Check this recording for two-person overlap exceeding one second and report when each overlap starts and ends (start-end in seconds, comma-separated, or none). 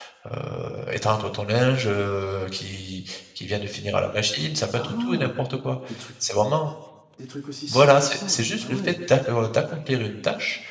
7.7-8.9